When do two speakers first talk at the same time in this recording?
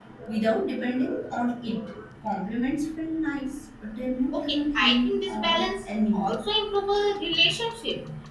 4.3 s

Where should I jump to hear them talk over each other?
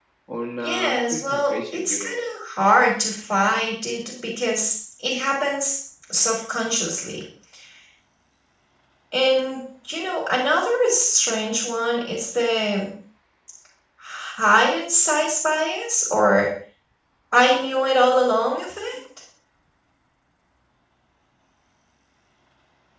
0.6 s

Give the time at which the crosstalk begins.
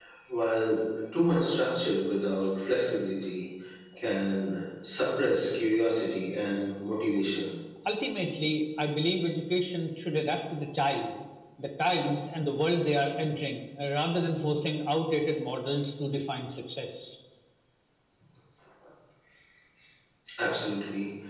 none

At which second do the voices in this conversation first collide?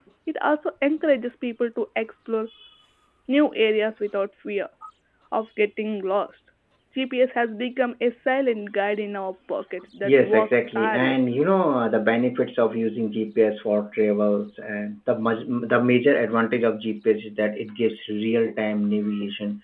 10.0 s

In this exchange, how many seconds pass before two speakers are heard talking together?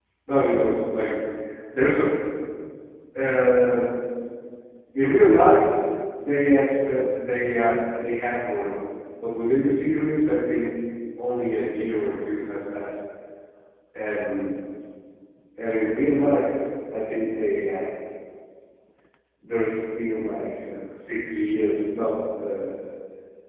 none

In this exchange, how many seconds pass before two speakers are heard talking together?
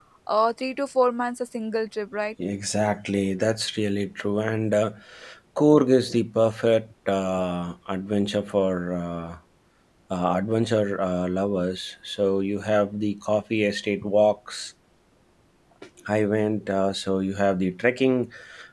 none

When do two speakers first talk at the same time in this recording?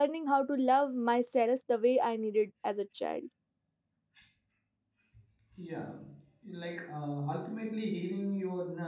none

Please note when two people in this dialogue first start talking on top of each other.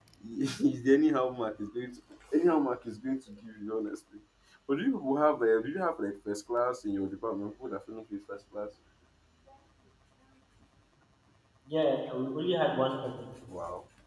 none

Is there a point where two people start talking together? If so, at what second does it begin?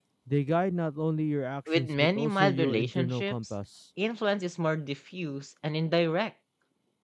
1.7 s

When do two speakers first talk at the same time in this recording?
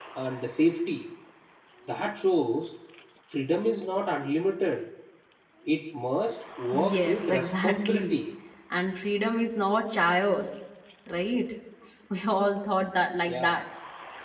6.7 s

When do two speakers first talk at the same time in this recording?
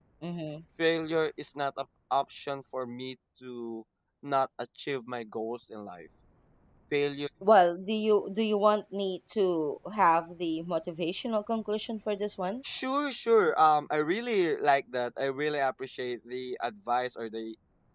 none

